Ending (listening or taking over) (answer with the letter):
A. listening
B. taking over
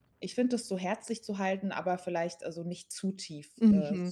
B